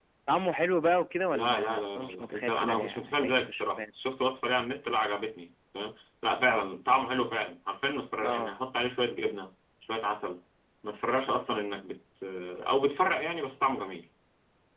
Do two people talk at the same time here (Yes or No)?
Yes